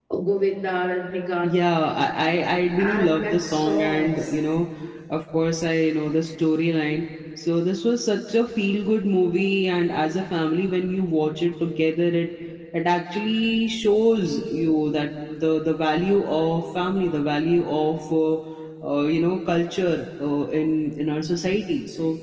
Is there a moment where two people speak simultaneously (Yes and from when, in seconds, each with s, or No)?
Yes, from 2.8 s